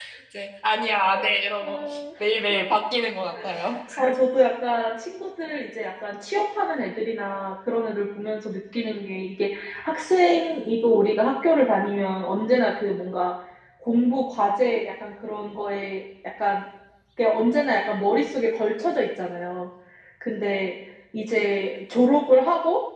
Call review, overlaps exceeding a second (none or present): none